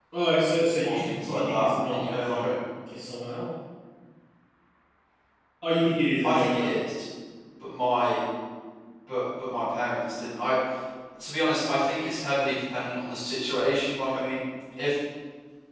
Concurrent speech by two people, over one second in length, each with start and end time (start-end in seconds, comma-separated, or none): 0.8-2.5